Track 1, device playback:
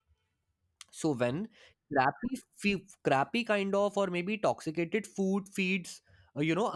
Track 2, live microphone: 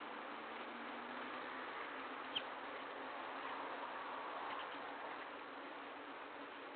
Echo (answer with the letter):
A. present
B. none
B